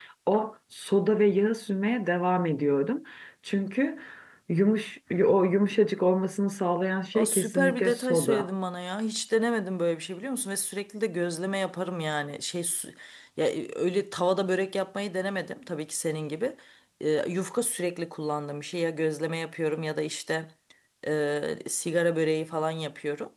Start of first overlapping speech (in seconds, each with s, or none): 7.1 s